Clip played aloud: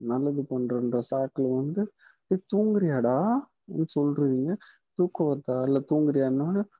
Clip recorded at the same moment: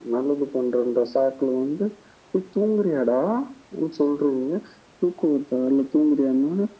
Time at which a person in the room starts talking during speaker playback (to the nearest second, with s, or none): none